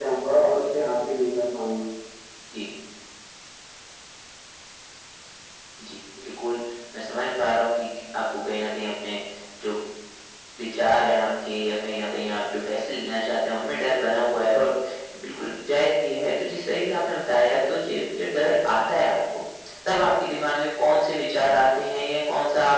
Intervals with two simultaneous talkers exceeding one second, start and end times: none

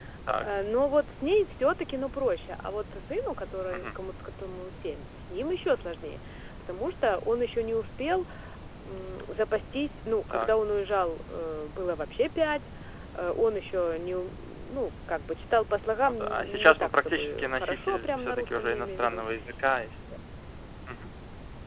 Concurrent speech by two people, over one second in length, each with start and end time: 16.1-19.2

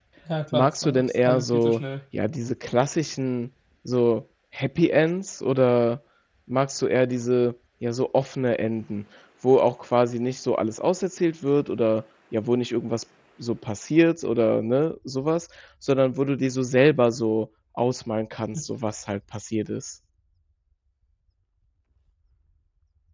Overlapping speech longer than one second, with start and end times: 0.5-1.8

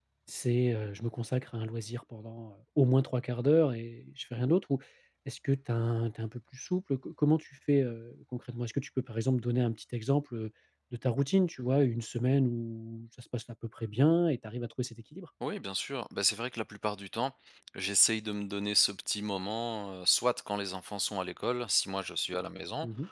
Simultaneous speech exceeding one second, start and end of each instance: none

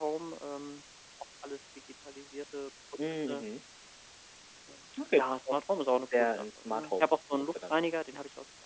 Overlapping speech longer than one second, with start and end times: 6.2-7.8

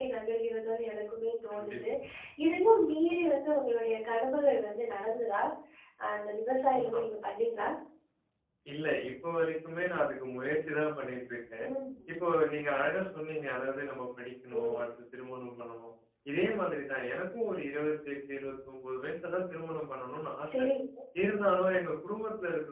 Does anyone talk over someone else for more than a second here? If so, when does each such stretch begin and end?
none

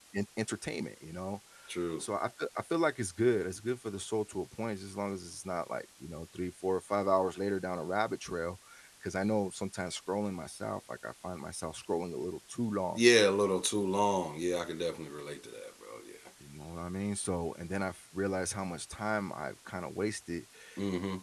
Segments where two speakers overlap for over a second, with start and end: none

